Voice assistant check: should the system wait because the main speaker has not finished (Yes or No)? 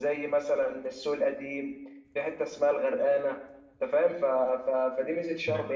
Yes